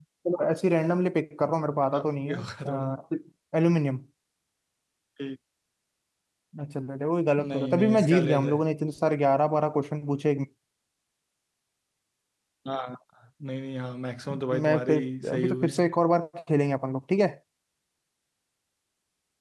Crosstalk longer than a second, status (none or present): present